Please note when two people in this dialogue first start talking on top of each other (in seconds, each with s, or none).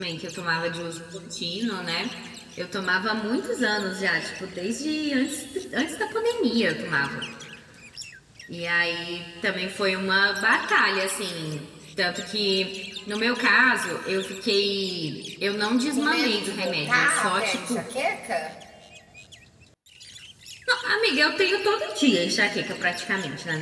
15.9 s